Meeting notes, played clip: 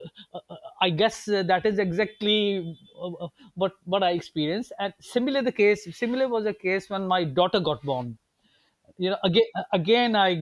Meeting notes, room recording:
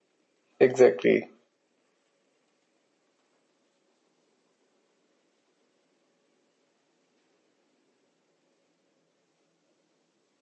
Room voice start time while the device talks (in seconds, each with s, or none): 0.6 s